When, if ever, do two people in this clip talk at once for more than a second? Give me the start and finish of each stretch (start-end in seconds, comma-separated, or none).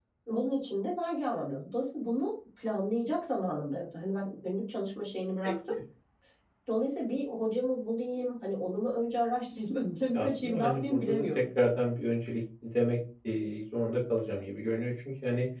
10.1-11.4